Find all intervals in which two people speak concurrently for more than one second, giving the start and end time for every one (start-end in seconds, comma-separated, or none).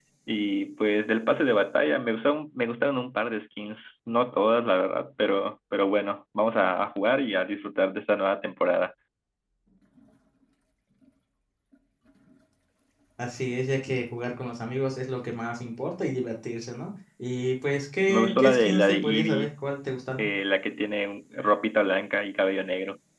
18.1-19.5